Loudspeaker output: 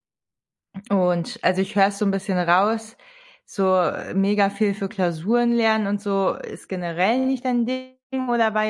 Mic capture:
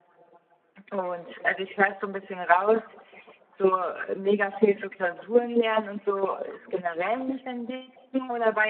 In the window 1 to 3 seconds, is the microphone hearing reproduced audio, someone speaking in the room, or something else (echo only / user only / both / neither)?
echo only